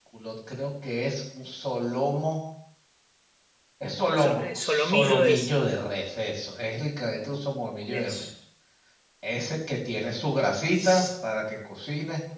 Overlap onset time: 4.2 s

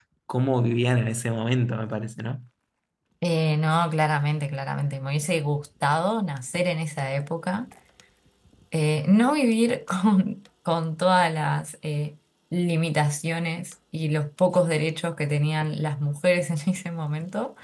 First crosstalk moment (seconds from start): none

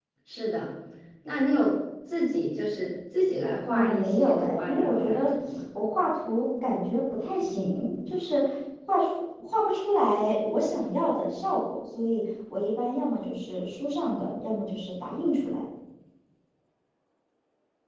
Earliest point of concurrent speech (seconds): 3.7 s

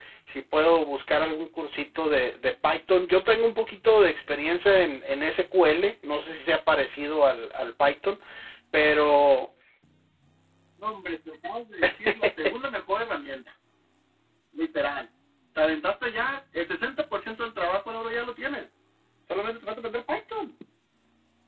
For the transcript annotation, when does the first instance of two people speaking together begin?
none

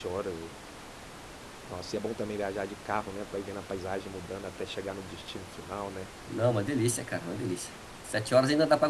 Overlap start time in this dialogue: none

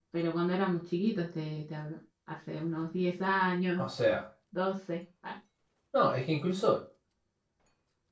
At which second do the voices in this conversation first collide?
none

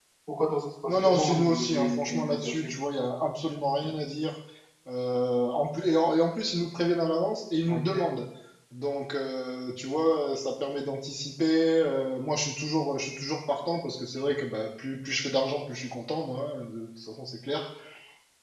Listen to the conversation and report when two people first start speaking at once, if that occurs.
0.9 s

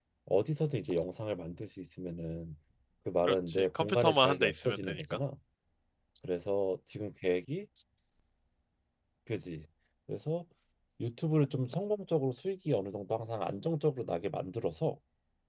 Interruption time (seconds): 3.3 s

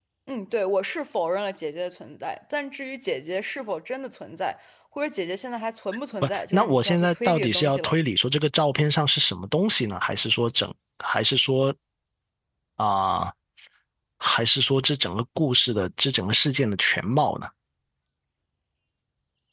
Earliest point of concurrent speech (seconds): 6.2 s

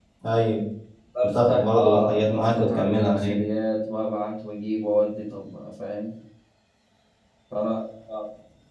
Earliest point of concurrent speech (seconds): 1.2 s

